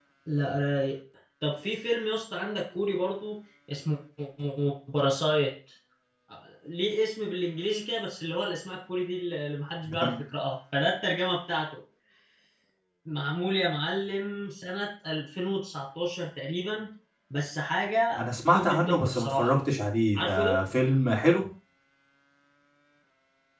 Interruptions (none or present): present